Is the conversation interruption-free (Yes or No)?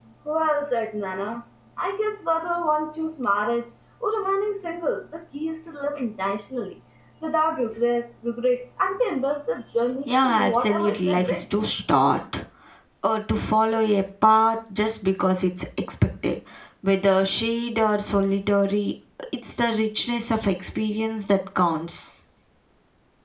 No